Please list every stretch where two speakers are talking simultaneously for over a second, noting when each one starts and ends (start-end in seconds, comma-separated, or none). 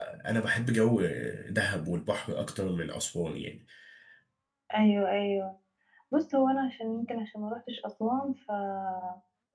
none